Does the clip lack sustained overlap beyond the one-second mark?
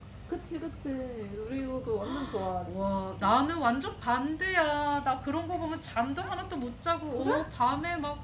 Yes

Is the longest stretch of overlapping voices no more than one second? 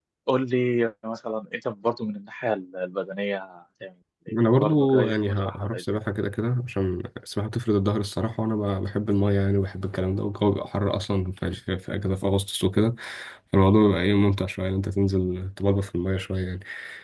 No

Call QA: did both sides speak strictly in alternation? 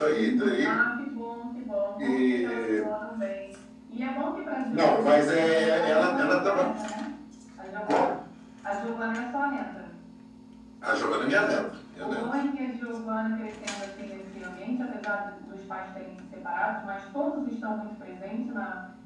No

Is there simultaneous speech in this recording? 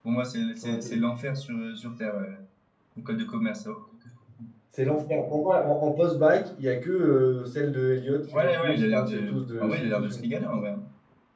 Yes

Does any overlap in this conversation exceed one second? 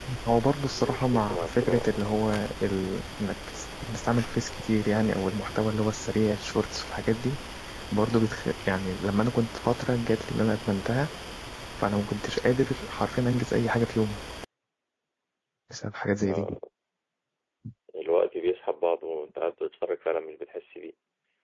Yes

